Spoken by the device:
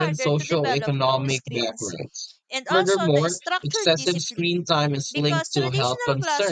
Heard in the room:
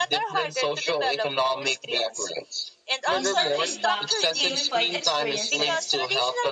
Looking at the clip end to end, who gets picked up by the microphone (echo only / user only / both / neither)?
both